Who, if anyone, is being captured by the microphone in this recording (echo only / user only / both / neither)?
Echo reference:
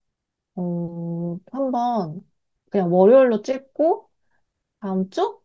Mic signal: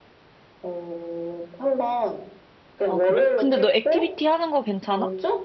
both